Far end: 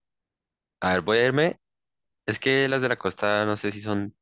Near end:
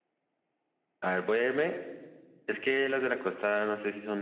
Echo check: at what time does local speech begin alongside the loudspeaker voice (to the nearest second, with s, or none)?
none